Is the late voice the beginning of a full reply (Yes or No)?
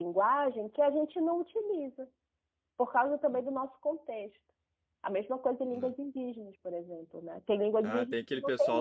Yes